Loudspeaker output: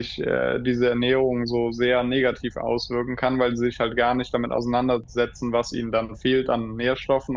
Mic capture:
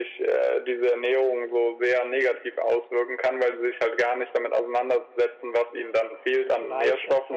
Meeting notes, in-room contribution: present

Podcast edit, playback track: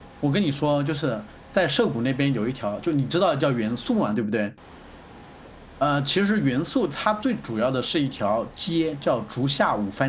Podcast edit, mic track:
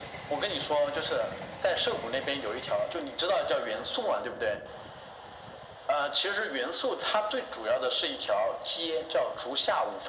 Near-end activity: none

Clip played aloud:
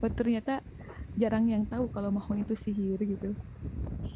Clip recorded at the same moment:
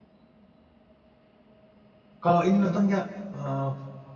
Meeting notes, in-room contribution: present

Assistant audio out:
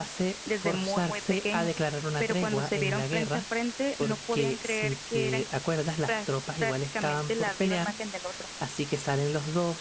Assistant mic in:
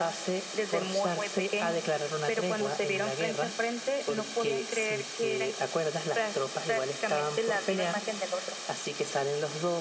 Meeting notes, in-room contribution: none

